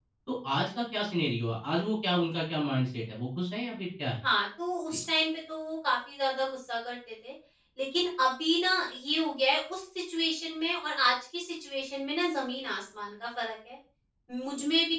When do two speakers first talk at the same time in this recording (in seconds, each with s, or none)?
none